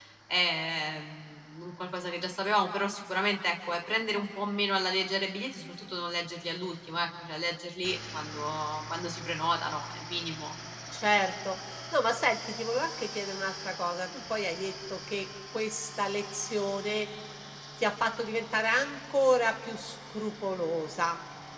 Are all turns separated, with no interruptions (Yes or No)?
Yes